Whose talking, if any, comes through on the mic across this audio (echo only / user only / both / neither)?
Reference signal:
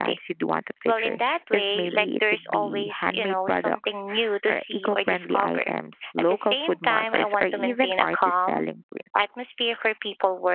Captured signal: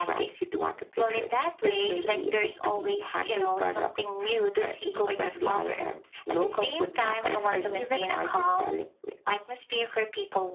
echo only